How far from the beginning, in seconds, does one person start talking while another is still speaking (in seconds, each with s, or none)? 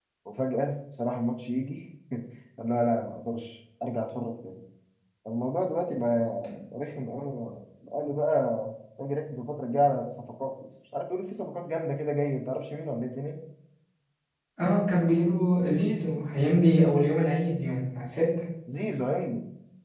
none